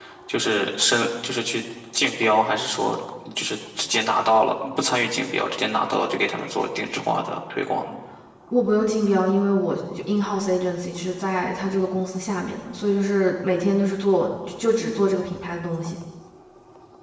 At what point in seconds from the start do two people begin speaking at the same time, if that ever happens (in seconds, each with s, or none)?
none